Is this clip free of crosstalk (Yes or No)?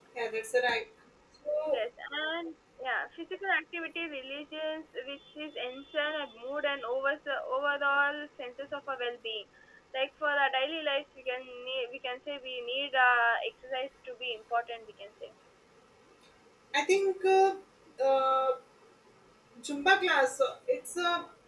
Yes